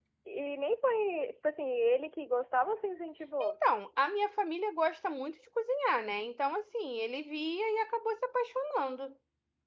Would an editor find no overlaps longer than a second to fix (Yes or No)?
Yes